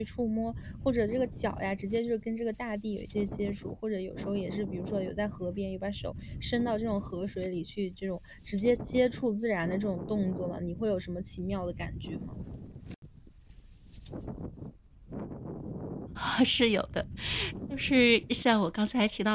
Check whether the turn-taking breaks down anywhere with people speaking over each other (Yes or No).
No